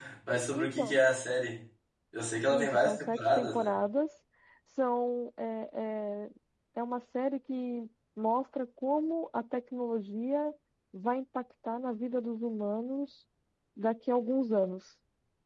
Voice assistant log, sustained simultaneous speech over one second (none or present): present